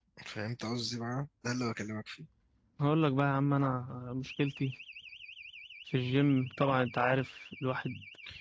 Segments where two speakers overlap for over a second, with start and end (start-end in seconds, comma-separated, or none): none